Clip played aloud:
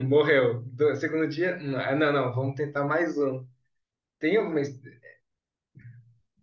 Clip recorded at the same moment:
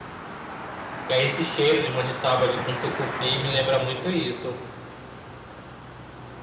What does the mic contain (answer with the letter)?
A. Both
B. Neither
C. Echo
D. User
D